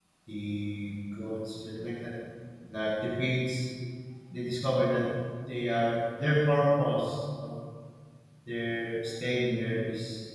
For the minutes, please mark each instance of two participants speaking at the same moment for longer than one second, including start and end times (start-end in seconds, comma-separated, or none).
none